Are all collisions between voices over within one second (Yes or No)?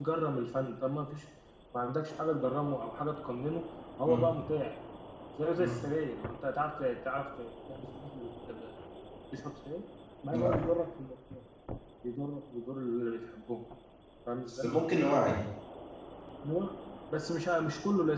Yes